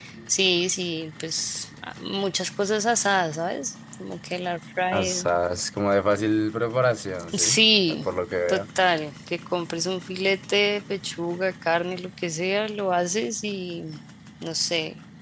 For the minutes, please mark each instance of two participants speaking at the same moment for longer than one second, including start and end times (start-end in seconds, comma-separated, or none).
none